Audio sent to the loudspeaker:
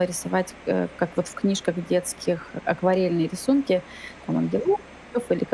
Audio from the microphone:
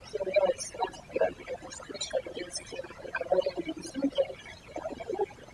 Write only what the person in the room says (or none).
none